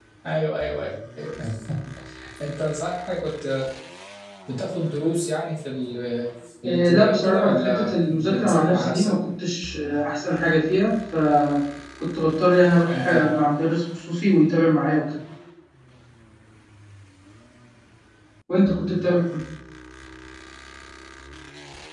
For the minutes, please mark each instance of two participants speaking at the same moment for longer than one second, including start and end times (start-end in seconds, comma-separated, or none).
6.6-9.1